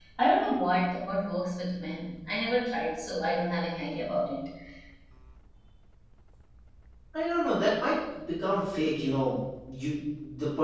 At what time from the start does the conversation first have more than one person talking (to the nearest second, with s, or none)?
none